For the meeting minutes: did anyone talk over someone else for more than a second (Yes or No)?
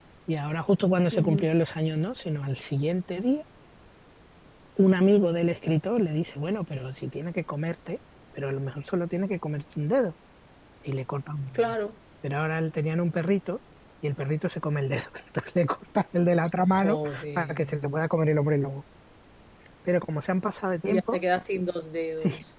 Yes